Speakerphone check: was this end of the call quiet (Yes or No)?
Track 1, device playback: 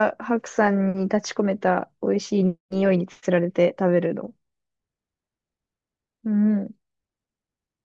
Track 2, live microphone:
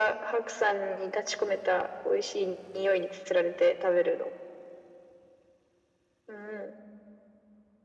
Yes